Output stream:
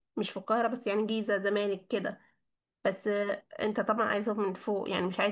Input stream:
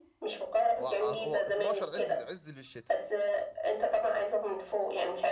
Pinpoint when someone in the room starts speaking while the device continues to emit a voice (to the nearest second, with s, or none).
1 s